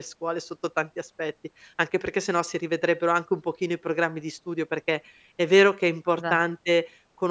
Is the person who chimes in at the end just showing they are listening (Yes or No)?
Yes